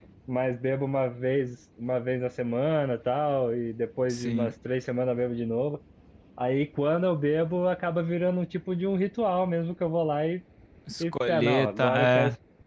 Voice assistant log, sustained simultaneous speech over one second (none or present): present